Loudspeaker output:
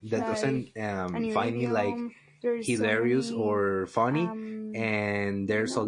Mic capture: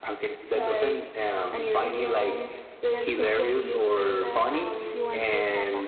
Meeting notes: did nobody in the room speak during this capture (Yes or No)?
No